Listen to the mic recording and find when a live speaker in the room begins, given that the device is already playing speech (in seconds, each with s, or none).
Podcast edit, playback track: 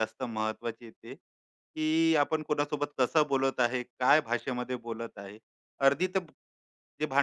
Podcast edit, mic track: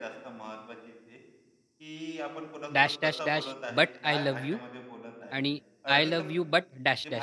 2.7 s